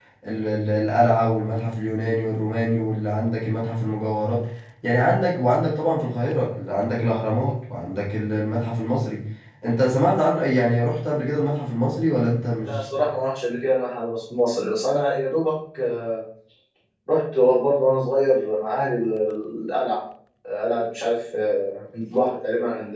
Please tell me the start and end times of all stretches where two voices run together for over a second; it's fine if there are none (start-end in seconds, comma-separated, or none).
none